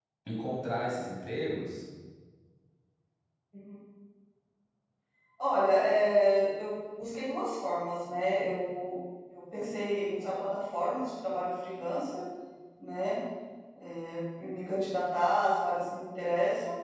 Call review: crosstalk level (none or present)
none